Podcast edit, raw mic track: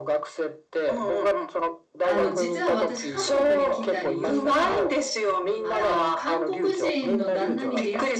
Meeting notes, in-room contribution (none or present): present